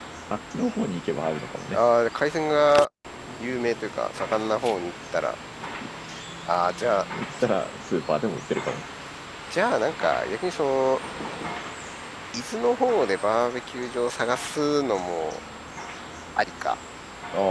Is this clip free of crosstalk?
Yes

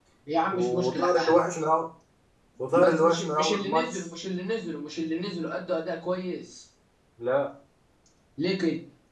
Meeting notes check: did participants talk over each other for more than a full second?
Yes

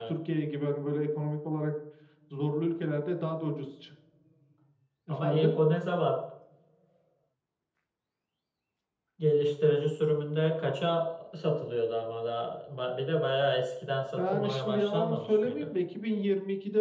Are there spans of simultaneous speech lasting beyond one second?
Yes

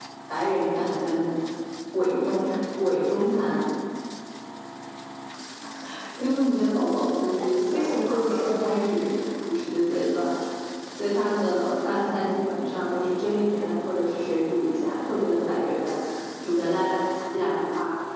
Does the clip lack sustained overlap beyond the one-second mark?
No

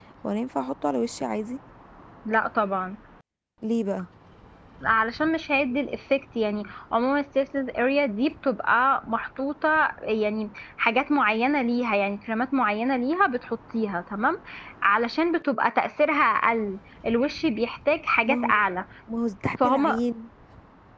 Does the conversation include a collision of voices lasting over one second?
No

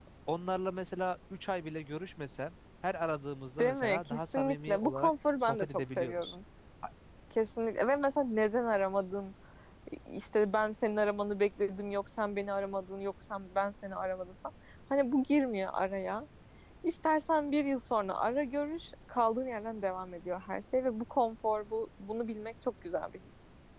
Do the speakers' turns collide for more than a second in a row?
Yes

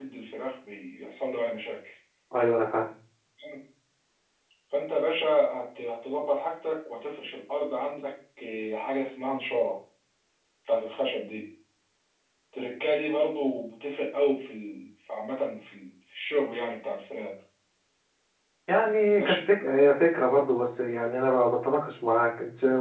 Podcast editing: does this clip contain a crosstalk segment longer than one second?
No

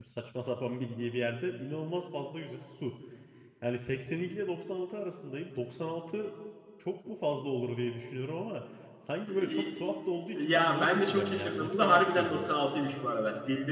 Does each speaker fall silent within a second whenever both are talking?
No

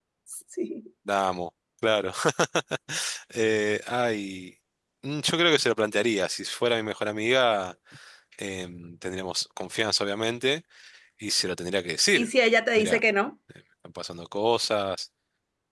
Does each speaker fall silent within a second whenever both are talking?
Yes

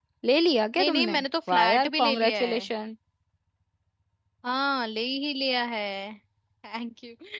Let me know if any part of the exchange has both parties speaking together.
Yes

